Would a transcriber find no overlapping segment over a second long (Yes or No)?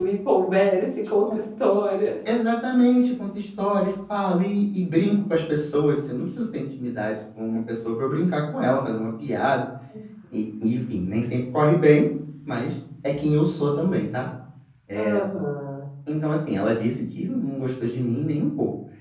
Yes